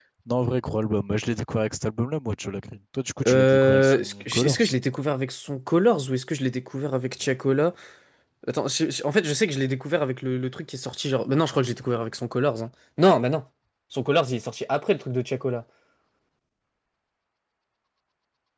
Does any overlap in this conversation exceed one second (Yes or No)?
Yes